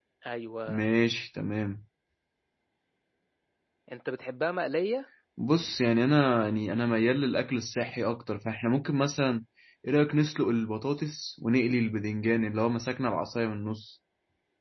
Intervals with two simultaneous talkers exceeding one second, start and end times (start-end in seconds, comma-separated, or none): none